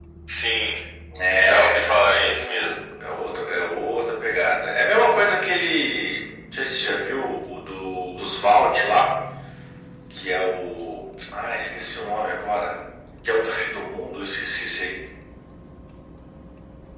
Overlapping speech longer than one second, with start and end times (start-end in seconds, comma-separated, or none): 1.4-2.8